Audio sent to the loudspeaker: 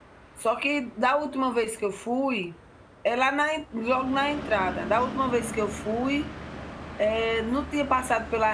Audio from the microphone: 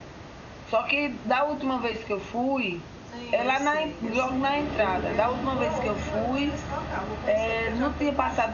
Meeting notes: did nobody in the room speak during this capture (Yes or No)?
No